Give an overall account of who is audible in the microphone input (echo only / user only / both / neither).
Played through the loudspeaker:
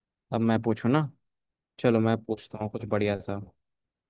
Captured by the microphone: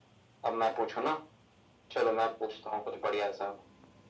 echo only